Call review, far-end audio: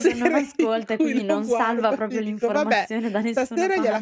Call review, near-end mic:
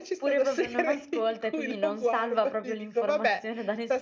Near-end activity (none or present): none